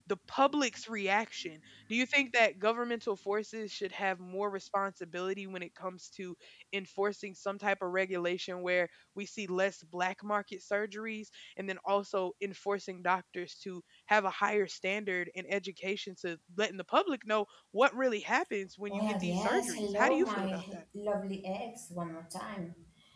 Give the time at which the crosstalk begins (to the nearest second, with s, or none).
19 s